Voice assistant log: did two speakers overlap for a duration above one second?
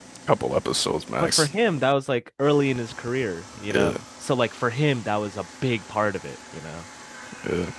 No

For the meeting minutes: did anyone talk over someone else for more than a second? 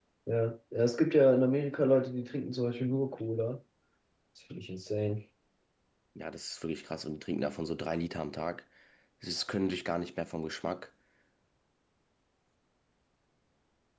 No

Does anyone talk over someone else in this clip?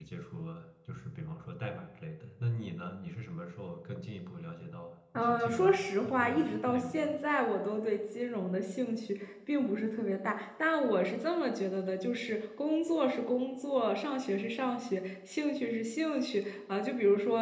Yes, from 5.2 s

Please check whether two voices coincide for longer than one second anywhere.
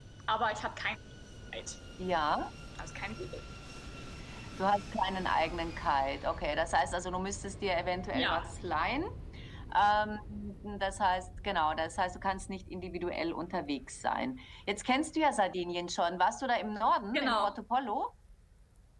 No

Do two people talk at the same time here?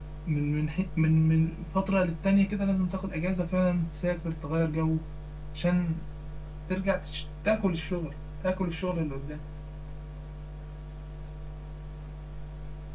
No

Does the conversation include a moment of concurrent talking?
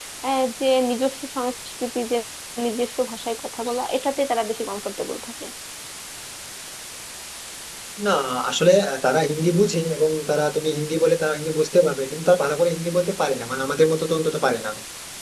No

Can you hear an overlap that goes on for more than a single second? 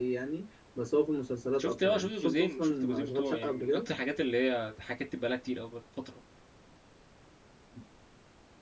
Yes, from 1.6 s

